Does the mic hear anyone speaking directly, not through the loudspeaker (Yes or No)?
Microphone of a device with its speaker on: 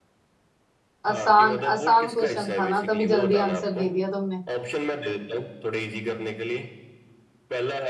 Yes